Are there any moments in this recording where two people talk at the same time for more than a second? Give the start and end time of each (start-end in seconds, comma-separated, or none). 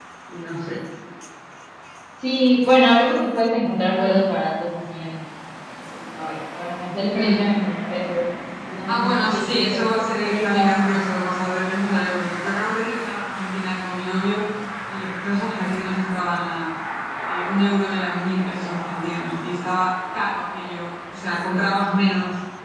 8.9-10.8